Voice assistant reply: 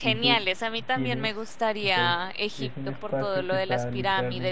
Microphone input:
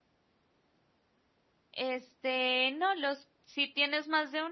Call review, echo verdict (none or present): none